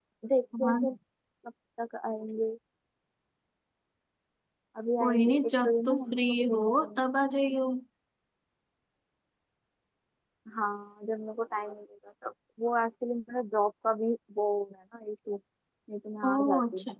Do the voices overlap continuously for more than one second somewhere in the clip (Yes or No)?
Yes